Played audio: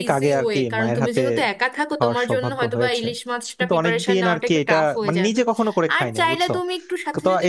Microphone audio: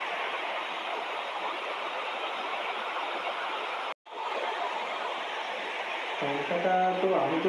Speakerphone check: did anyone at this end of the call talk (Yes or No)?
Yes